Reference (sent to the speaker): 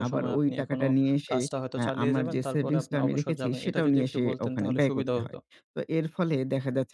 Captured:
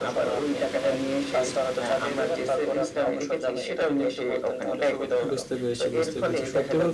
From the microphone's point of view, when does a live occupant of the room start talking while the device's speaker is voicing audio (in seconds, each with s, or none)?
5.3 s